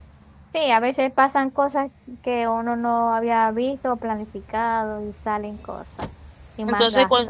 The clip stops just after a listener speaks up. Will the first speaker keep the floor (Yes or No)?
No